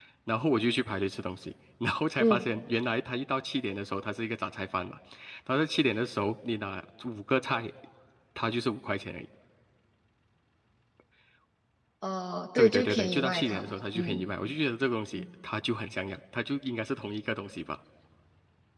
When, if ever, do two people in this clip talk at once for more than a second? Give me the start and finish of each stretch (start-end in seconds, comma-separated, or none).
12.6-14.2